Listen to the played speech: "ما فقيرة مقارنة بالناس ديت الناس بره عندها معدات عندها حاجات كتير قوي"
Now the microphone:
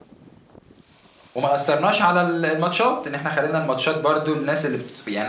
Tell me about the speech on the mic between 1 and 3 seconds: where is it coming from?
user only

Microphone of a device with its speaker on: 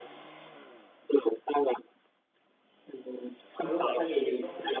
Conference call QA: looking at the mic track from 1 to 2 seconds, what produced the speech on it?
echo only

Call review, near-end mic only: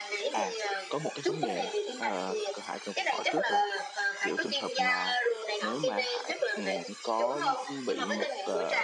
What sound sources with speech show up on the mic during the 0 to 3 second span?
both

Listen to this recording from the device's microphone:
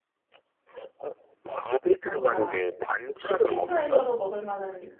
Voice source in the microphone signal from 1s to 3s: both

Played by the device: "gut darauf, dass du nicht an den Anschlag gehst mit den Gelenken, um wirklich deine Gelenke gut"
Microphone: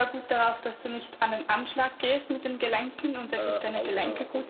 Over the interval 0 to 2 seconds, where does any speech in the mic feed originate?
echo only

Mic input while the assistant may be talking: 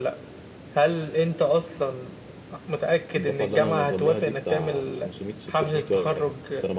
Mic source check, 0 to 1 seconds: echo only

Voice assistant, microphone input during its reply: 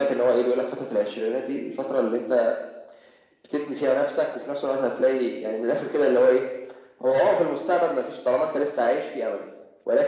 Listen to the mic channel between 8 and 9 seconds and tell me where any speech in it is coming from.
echo only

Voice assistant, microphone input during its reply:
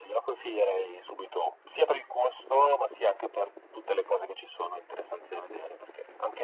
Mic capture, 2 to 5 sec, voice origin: echo only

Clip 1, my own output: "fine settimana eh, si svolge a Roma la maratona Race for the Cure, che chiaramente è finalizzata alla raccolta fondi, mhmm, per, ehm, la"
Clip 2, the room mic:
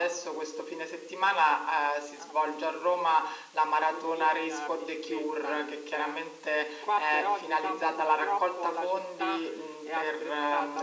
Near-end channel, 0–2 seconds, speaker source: echo only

